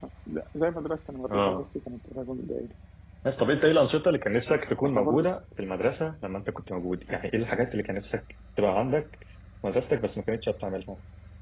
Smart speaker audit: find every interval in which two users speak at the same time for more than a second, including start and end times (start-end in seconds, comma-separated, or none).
none